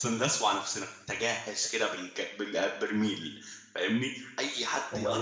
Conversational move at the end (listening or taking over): taking over